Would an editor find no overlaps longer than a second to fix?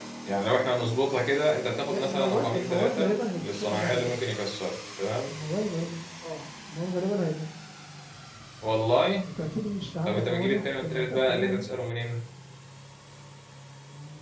No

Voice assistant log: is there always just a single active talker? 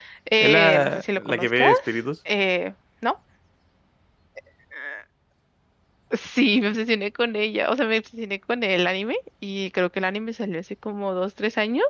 No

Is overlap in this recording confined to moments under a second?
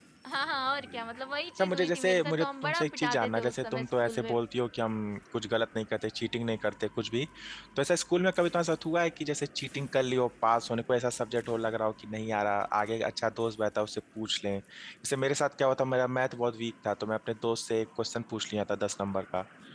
No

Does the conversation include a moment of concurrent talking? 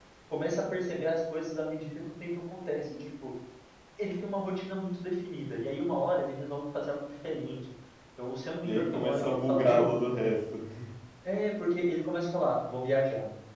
Yes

